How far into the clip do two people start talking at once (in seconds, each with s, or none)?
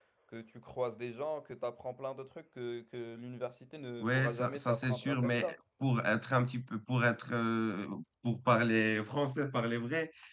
4.0 s